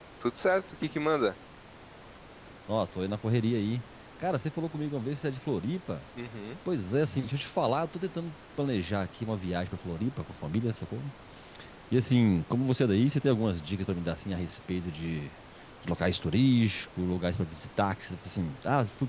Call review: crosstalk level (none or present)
none